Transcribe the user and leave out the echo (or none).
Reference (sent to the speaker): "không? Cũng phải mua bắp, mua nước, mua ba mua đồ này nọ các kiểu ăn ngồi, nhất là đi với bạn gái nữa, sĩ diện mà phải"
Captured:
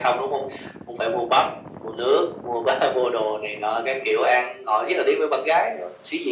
none